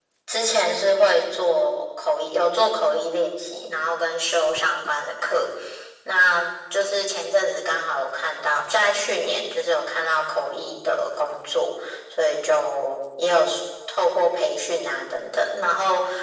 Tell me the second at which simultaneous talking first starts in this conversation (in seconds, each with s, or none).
none